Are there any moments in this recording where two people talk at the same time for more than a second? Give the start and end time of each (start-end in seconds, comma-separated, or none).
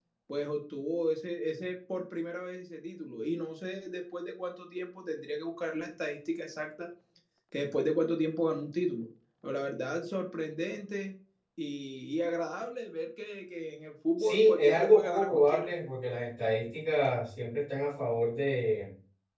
14.2-15.7